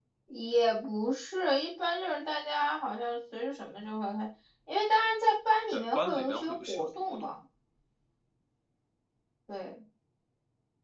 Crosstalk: present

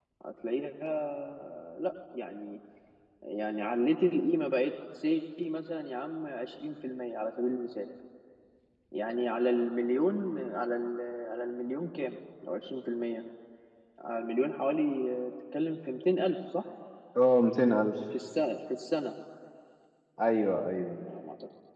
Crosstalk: none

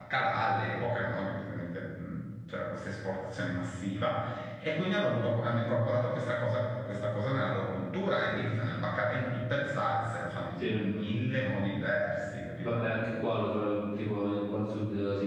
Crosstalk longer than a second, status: none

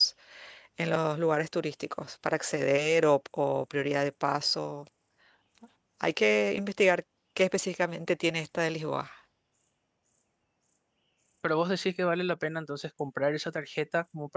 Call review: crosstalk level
none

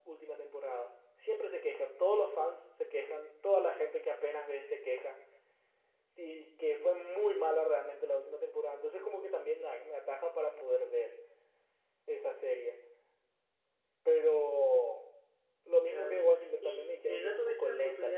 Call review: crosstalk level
present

